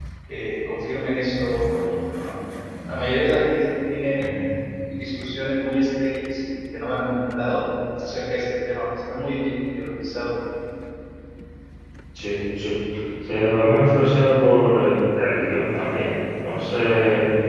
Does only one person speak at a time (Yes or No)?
Yes